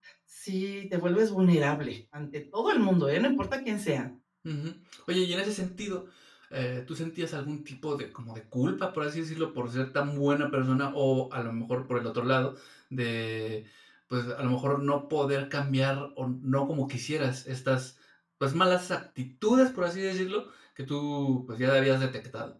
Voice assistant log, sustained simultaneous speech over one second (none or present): none